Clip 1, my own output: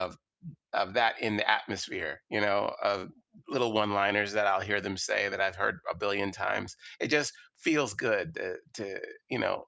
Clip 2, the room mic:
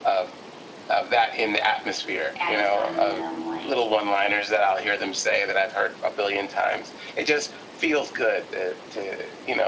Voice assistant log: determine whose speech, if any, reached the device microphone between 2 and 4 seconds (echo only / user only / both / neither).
both